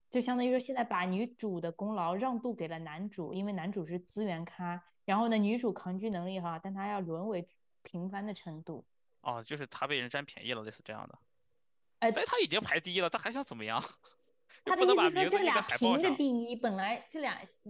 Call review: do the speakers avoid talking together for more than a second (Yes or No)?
No